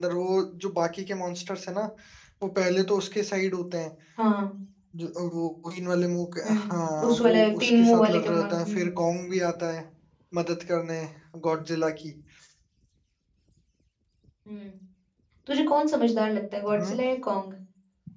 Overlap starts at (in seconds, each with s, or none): 6.4 s